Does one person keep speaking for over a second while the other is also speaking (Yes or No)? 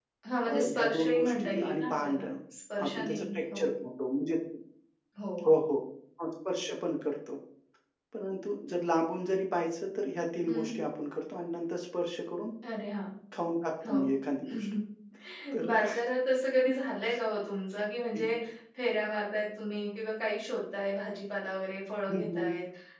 Yes